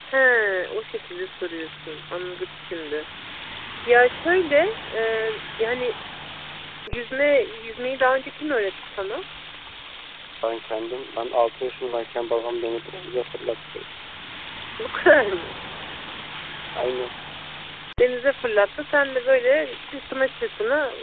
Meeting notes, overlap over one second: none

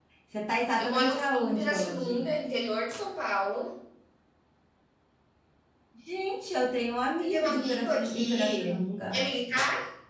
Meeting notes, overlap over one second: present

